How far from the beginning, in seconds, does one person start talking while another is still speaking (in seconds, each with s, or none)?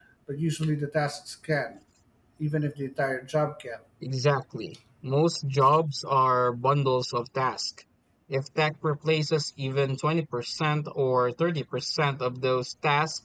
none